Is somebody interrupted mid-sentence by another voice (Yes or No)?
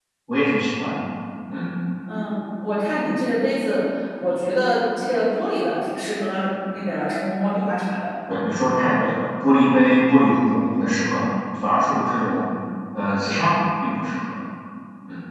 No